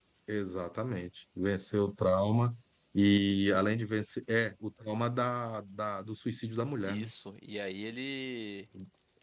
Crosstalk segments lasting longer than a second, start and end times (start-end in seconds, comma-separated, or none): none